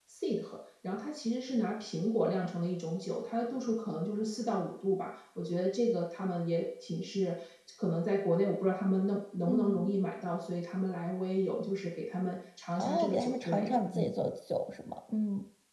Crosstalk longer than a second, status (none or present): present